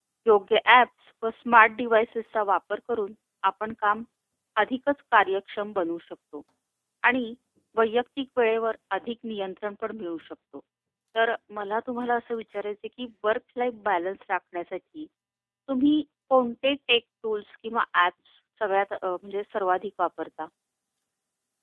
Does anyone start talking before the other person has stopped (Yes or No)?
No